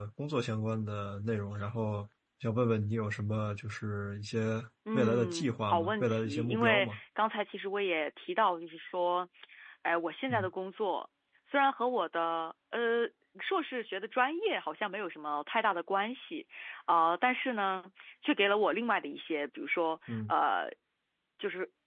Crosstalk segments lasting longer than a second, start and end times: 4.9-7.0

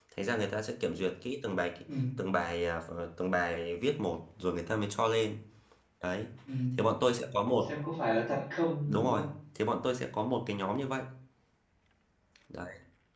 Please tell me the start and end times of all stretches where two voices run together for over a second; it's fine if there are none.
none

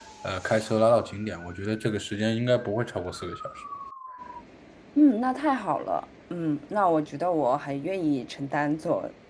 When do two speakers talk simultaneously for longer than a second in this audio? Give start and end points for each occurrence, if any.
none

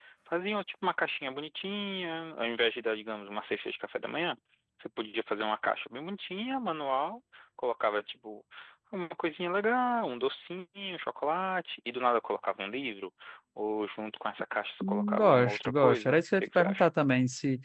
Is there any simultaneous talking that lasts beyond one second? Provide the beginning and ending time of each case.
14.8-16.9

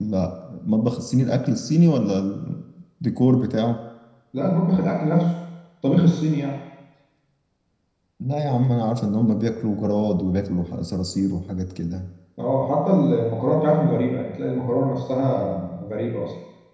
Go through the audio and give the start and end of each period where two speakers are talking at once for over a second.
none

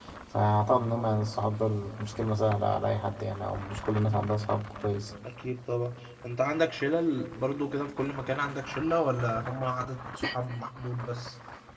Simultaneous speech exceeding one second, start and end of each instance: none

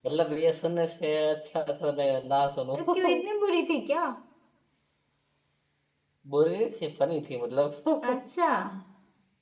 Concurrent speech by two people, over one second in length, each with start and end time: none

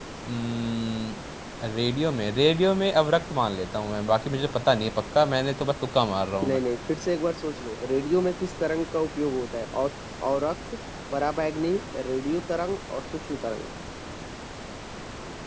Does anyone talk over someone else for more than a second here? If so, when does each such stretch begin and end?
none

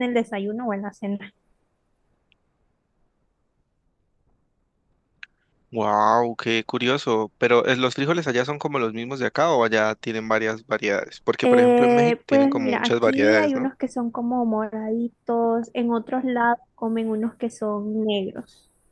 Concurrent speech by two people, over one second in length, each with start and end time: 11.4-13.7

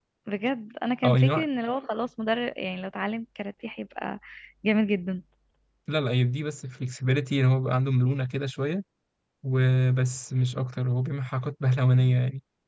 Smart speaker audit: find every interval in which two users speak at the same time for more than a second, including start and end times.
none

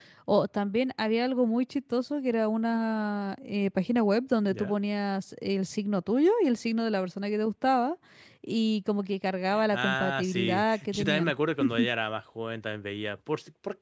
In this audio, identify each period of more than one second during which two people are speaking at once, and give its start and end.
9.7-11.3

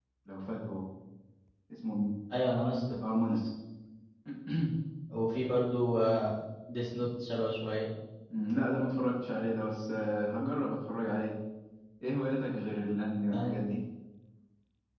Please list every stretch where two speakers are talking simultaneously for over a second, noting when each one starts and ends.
none

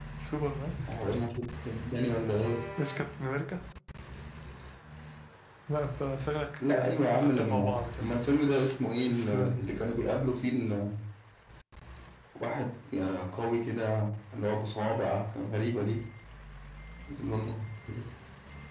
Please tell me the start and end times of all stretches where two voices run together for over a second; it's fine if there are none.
6.6-8.1

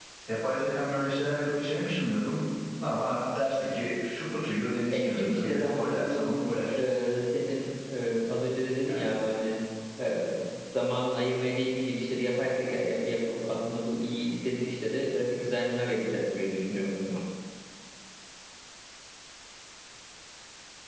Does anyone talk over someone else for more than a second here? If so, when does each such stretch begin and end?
4.9-6.3

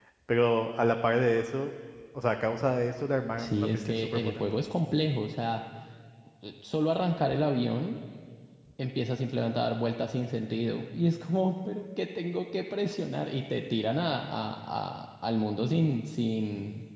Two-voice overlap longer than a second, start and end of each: 3.4-4.6

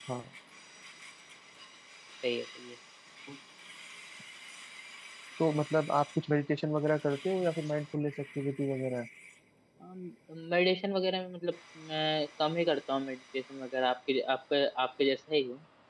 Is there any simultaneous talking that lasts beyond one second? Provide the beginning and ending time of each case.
none

